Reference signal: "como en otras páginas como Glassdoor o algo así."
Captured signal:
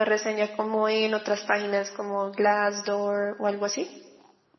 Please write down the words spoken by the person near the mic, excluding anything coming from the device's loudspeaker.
none

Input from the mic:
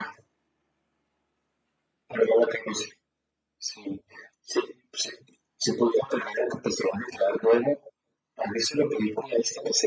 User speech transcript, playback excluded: none

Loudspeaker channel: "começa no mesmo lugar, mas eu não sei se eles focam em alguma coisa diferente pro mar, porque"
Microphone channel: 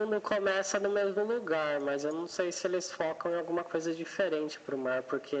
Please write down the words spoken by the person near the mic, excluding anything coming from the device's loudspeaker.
none

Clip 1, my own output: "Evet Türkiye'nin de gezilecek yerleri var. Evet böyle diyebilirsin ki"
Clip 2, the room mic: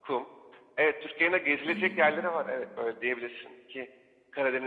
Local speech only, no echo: Hı hı.

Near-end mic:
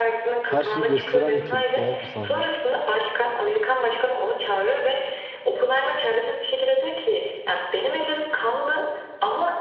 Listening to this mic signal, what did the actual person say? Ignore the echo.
her şeyi gösteren nitelikte ya bu sahne.

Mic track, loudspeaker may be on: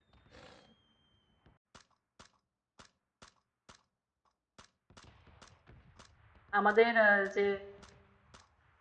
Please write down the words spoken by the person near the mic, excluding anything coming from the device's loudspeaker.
আমাদের আহ, যে

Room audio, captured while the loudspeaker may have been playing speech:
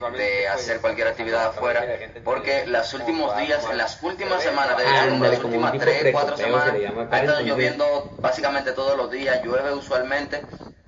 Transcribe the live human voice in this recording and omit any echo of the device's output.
Ándale, como un tipo precopeo se le llama acá. Entonces,

